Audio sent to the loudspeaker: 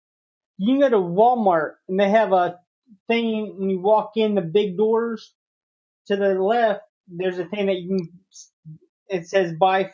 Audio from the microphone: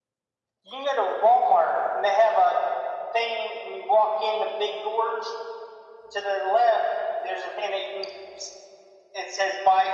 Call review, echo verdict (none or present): present